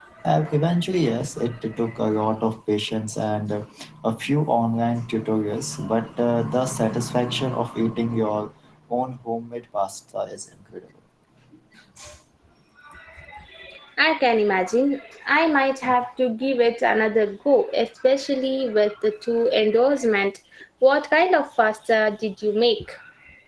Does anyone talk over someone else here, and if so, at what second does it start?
none

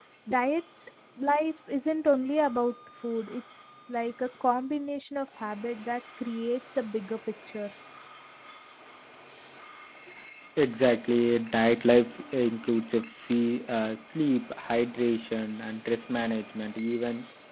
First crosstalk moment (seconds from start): none

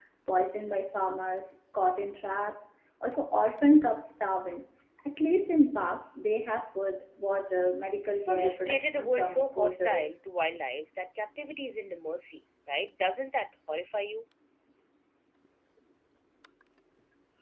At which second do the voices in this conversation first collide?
8 s

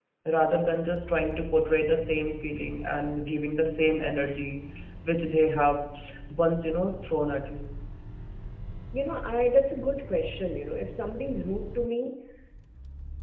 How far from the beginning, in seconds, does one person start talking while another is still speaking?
none

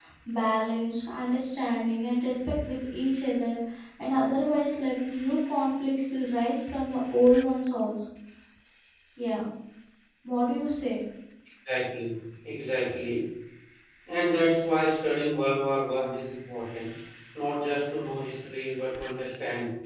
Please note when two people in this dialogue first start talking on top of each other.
none

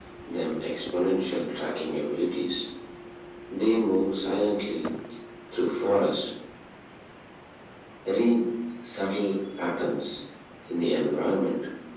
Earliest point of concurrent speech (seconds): none

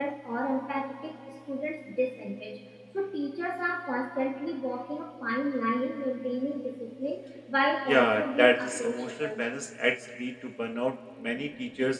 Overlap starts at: 8 s

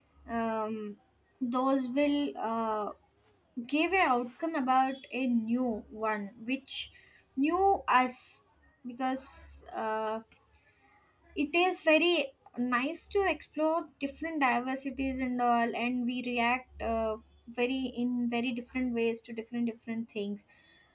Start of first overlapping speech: none

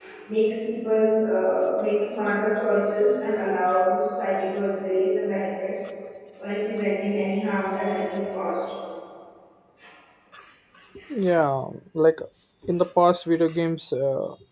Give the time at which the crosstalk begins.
none

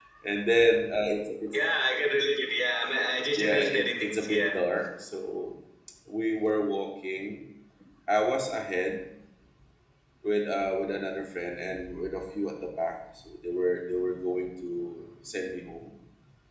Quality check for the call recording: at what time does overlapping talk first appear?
3 s

